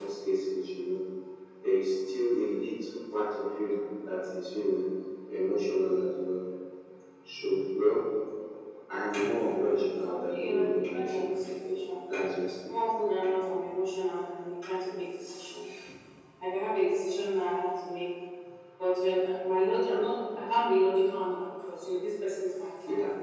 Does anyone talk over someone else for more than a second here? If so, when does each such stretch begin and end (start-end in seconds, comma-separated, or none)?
10.0-11.4